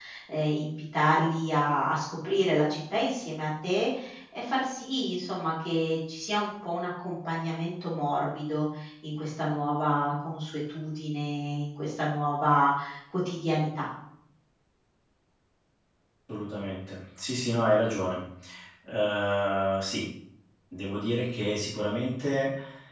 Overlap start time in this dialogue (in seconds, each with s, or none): none